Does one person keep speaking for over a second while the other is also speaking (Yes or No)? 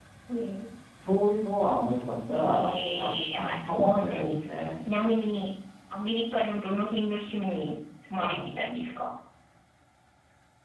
Yes